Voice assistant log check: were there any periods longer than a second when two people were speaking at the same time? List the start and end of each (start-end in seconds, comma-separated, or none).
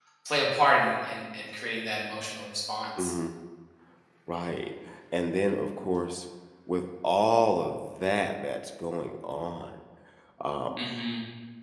none